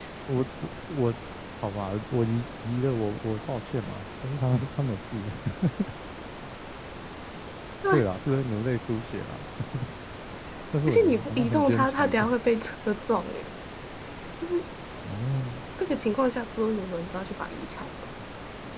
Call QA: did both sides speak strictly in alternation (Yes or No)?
No